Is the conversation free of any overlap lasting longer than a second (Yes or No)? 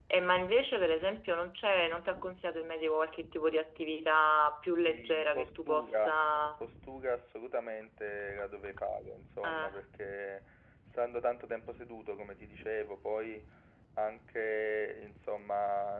No